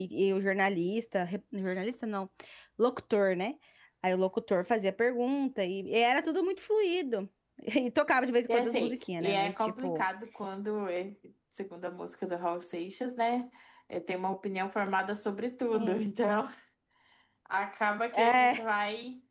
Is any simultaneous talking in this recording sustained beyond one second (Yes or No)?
Yes